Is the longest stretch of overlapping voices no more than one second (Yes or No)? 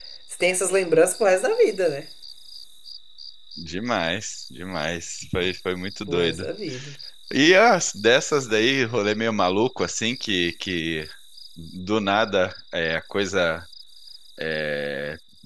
Yes